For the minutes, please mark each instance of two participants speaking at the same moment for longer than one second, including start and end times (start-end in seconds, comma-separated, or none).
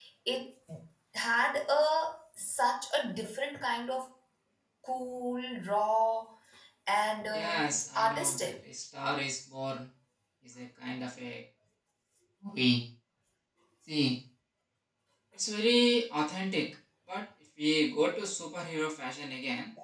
7.3-8.5